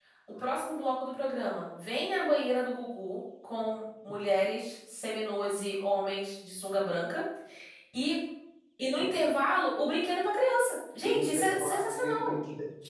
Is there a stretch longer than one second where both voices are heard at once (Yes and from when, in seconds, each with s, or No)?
Yes, from 11.0 s